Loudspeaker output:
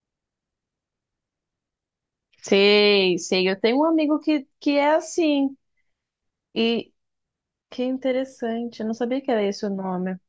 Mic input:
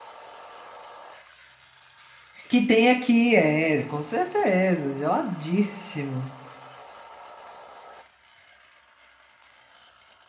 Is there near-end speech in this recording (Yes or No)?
Yes